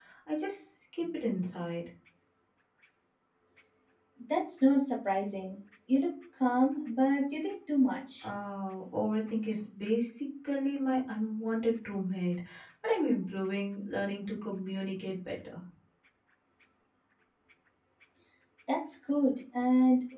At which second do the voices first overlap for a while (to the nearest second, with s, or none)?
none